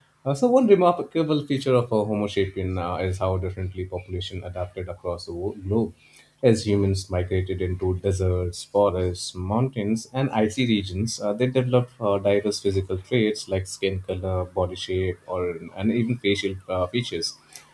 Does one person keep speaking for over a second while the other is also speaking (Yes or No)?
No